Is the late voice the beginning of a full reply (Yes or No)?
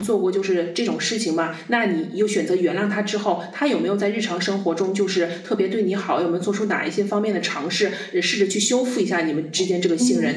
Yes